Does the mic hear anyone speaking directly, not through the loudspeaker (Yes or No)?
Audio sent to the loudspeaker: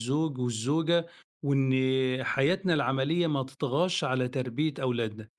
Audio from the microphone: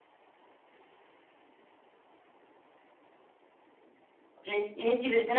Yes